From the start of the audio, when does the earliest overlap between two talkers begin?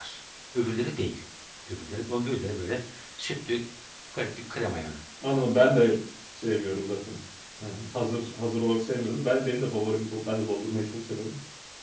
none

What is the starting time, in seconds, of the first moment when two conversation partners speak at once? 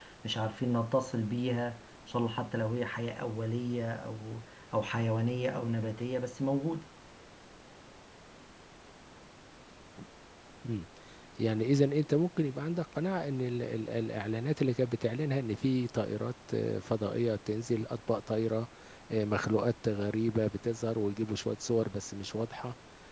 none

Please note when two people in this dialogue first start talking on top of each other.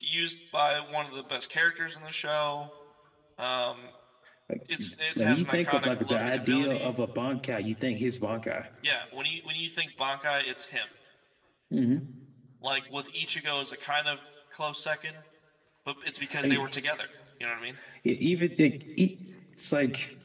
5 s

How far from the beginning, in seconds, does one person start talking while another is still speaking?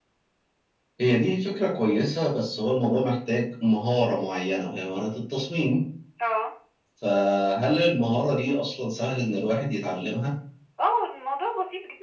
none

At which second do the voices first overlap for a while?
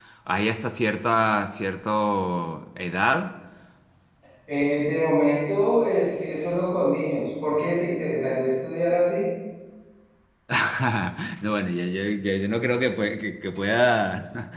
none

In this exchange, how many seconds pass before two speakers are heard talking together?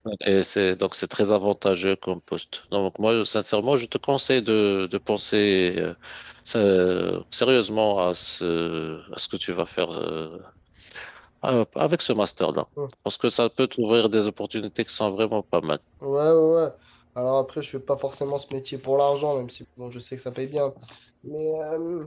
none

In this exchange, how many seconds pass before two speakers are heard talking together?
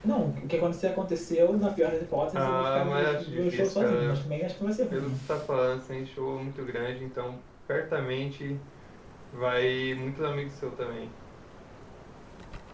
2 s

